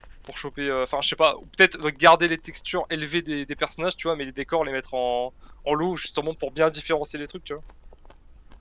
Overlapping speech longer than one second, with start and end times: none

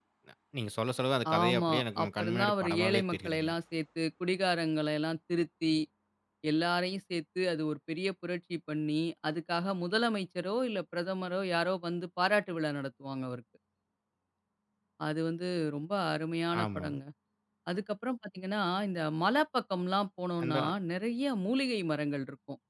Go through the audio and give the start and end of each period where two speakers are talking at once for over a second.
1.4-3.5

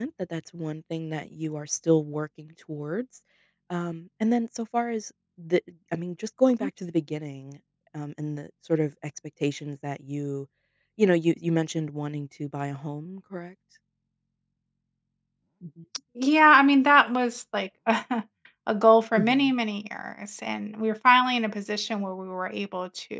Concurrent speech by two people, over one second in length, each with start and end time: none

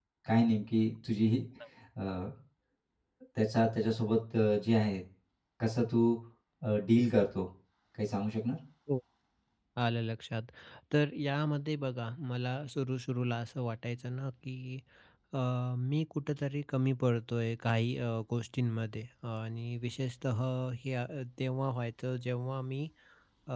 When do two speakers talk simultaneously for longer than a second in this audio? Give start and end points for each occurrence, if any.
none

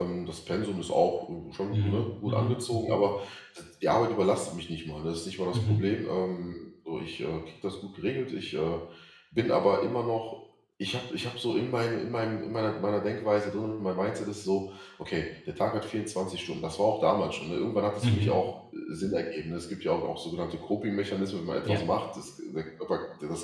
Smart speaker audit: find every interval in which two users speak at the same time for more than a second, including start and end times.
1.7-3.0

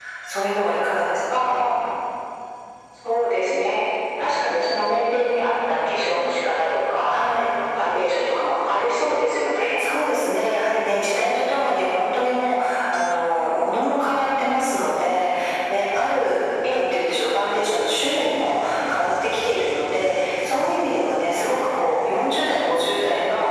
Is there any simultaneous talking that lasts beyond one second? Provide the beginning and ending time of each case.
none

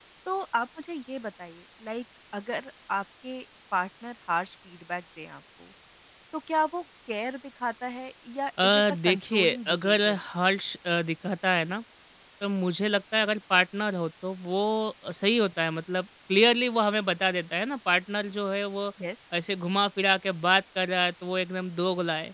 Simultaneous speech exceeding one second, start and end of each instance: 8.6-10.2

